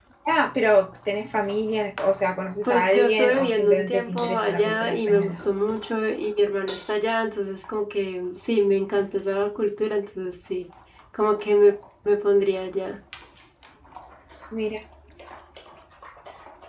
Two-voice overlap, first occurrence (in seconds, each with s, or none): 2.6 s